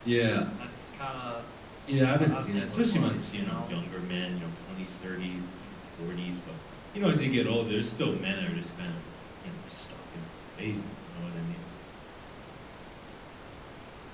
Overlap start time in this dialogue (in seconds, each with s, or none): 2.0 s